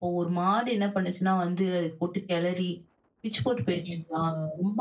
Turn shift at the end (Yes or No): No